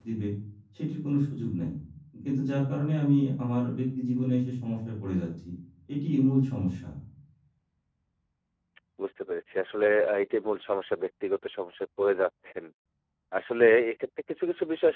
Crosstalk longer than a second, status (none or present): none